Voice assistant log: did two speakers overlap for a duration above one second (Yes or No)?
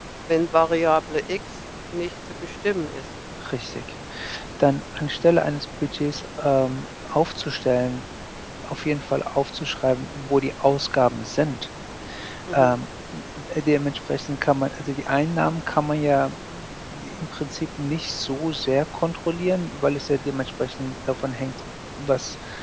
No